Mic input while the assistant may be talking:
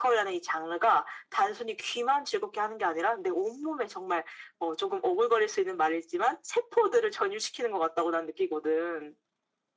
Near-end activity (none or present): none